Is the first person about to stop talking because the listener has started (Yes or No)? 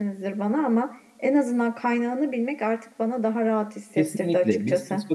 Yes